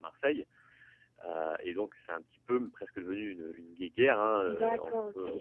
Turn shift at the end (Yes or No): Yes